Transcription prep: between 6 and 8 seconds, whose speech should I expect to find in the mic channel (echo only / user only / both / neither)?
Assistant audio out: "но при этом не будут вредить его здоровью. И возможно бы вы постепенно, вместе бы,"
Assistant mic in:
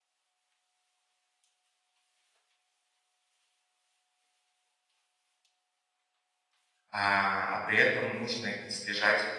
user only